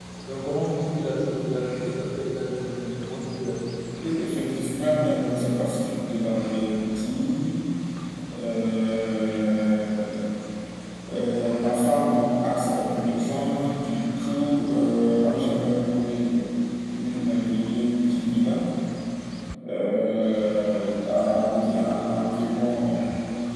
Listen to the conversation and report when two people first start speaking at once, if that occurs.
none

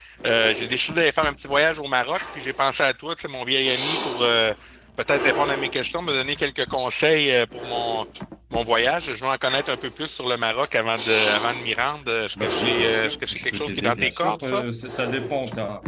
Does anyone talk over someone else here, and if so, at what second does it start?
12 s

